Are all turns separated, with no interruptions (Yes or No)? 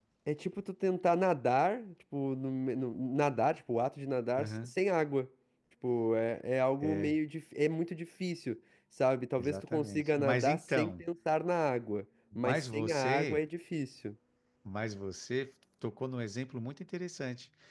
No